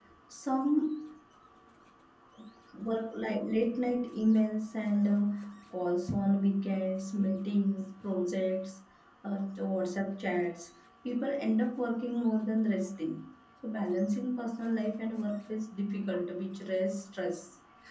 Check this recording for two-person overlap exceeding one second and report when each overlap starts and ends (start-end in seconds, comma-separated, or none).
none